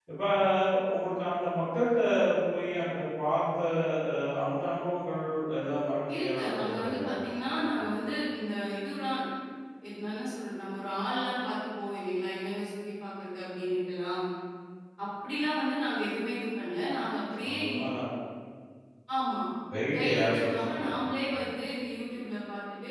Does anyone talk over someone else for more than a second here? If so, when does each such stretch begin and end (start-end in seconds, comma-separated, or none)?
6.1-7.5, 19.9-21.4